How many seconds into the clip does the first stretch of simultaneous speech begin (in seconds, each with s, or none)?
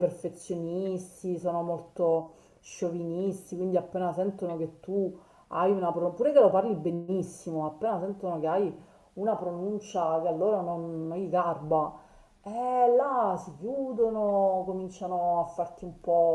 none